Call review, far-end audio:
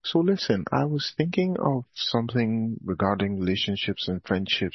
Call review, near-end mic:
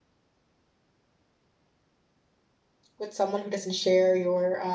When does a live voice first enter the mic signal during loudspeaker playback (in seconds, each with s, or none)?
3.0 s